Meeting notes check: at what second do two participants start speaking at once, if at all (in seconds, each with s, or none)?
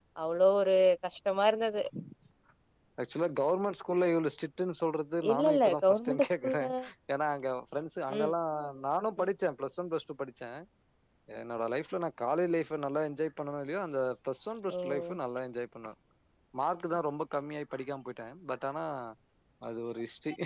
5.3 s